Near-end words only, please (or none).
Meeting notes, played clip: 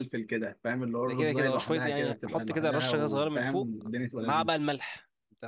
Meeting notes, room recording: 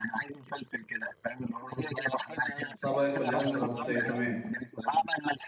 صبعي كلها متغطية تمام